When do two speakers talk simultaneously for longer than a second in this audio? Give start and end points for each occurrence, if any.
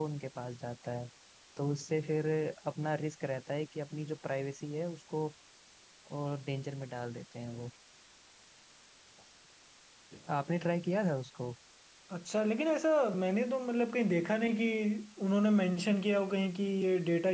none

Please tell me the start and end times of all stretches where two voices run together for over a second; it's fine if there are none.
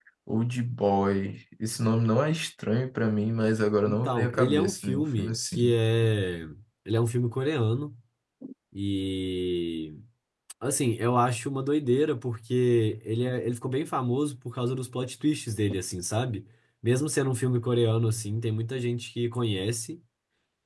3.9-5.7

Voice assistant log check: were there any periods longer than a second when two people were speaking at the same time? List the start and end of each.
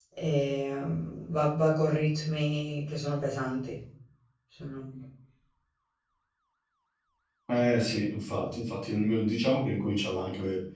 none

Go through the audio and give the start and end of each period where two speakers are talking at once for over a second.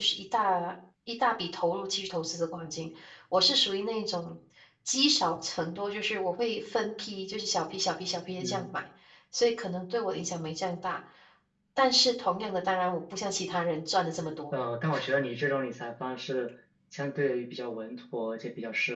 none

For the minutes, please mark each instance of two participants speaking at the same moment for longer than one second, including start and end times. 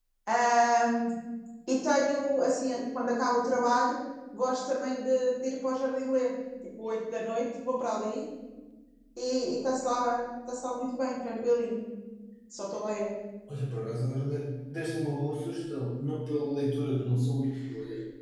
none

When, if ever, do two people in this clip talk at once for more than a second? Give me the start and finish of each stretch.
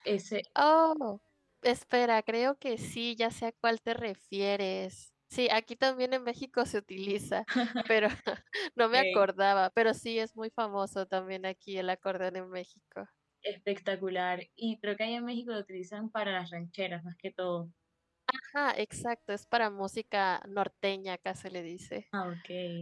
none

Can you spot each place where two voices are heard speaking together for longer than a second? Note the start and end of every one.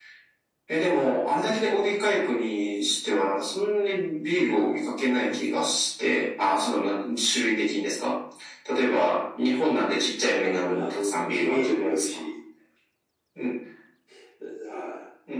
10.4-12.2

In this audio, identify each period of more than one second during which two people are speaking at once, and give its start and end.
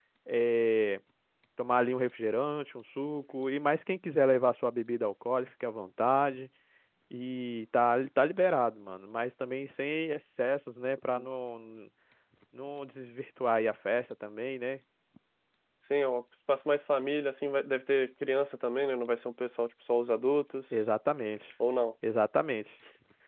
none

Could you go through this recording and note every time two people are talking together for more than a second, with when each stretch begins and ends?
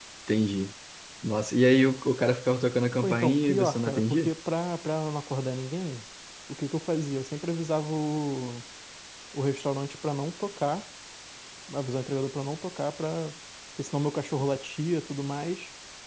3.0-4.3

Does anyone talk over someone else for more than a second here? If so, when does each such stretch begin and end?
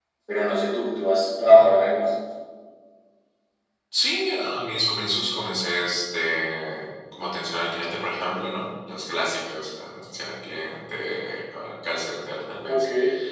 none

